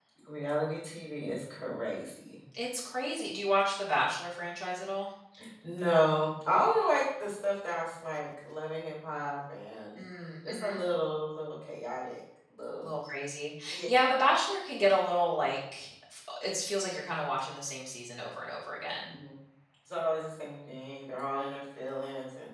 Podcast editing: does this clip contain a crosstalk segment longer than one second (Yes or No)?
No